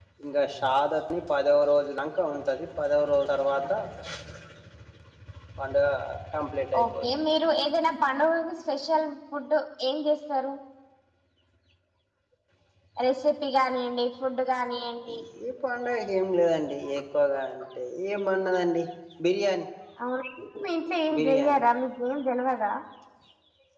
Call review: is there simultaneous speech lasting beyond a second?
No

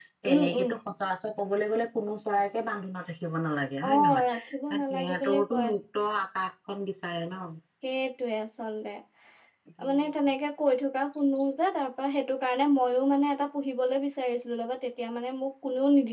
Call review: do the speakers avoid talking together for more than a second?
No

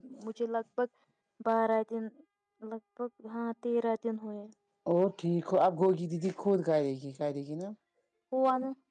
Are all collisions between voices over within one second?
Yes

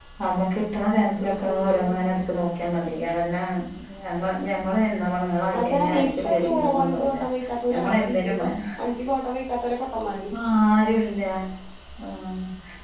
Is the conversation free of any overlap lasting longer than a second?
No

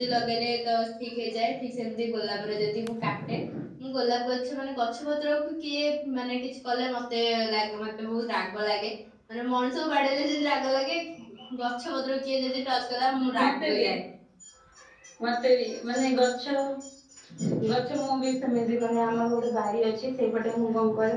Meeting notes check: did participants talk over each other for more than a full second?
No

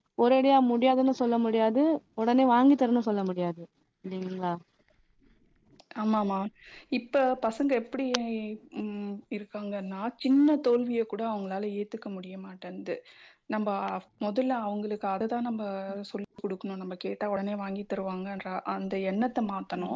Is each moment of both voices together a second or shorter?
Yes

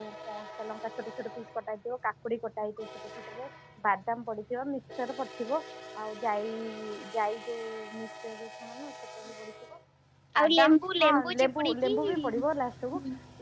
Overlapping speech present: Yes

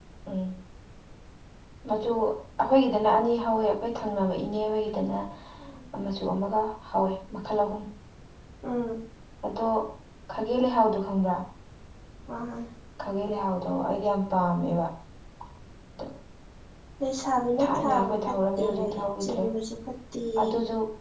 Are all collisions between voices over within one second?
No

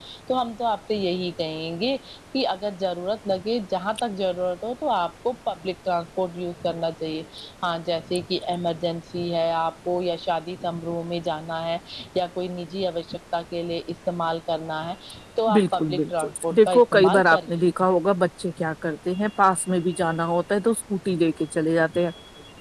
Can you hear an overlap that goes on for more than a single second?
Yes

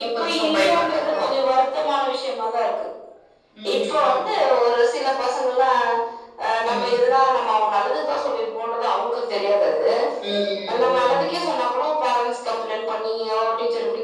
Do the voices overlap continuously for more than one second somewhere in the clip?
Yes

